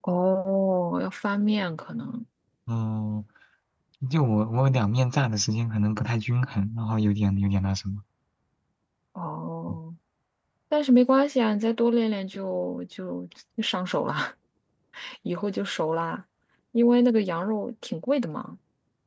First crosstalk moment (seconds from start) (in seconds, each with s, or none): none